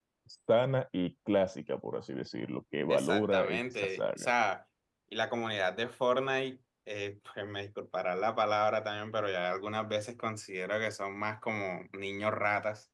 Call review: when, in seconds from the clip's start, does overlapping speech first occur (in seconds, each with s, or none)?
2.9 s